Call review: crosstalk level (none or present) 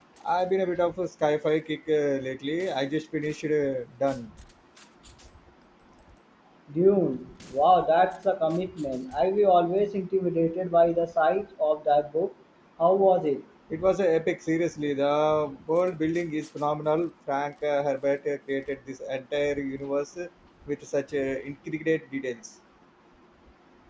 none